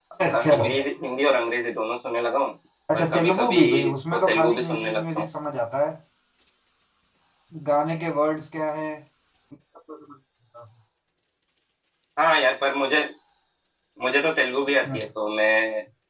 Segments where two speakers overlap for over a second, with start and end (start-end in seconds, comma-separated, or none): 2.9-5.3